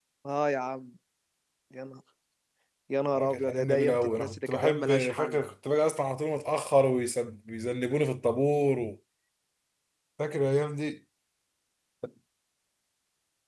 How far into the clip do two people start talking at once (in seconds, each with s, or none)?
3.2 s